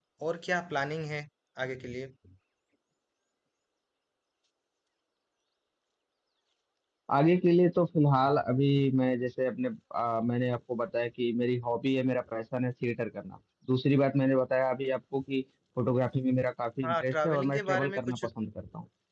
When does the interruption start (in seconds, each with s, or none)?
16.8 s